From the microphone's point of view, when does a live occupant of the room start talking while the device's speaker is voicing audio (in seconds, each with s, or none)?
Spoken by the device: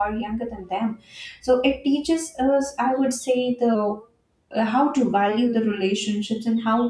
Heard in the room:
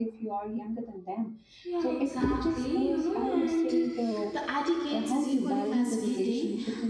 1.6 s